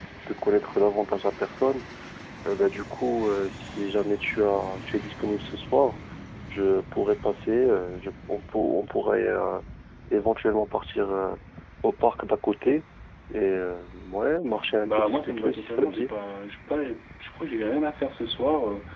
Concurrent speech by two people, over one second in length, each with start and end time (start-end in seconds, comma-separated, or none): 14.8-16.1